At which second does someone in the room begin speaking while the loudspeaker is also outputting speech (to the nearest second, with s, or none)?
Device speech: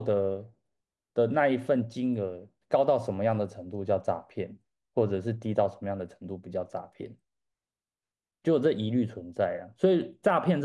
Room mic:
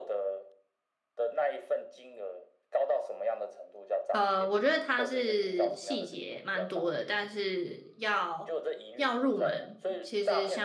4 s